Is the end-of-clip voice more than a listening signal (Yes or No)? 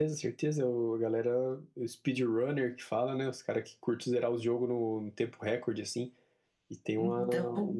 No